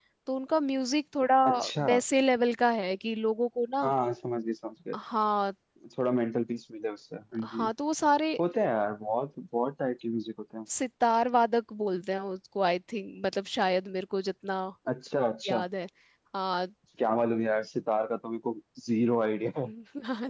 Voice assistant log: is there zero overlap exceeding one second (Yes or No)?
Yes